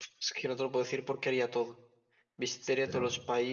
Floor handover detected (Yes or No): No